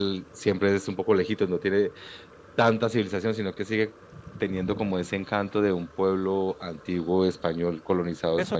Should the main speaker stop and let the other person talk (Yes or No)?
Yes